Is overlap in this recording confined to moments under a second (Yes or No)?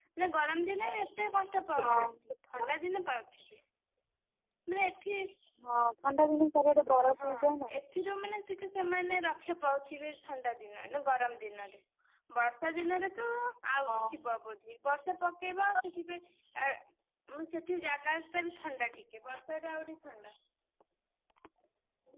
Yes